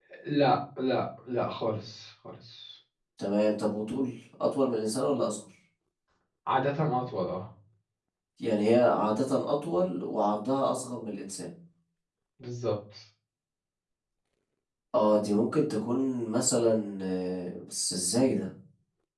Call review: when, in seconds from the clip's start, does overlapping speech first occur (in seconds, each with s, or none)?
none